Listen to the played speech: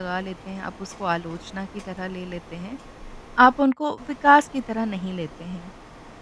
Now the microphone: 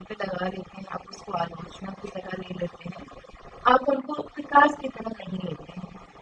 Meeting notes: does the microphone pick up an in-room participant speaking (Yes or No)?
No